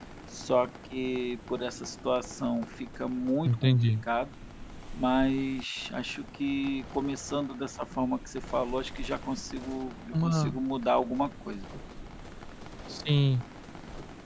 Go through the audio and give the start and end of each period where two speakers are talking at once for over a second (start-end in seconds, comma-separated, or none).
none